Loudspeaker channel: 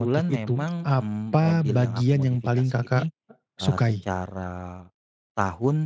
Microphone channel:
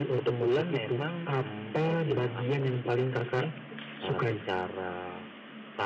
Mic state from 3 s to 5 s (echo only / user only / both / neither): echo only